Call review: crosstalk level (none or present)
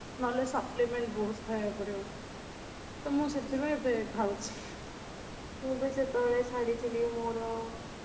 none